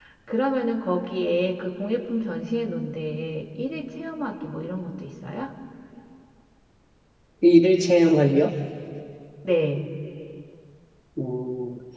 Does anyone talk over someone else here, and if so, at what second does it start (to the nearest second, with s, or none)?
none